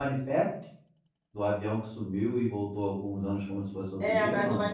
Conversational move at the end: taking over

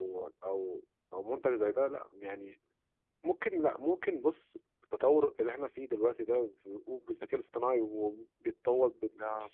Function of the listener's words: listening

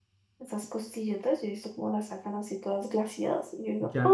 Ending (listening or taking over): taking over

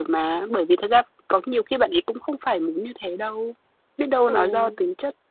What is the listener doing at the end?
listening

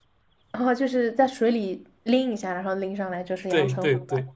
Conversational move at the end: taking over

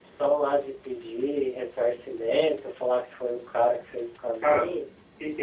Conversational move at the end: taking over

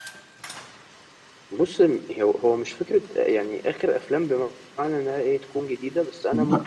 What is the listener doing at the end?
listening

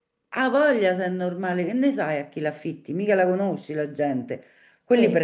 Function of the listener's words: listening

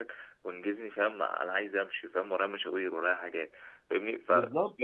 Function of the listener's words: listening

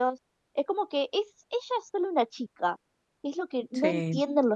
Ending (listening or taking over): listening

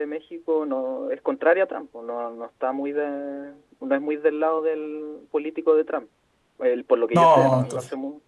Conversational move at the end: taking over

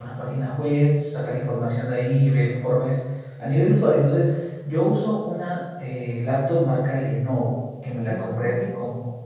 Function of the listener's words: listening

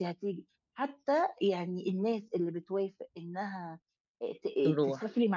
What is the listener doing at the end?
listening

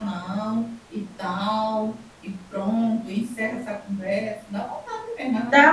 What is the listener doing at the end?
taking over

